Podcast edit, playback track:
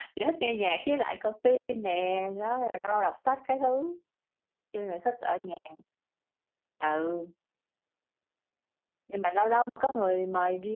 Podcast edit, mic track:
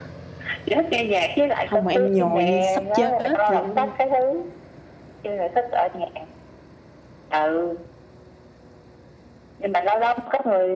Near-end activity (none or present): present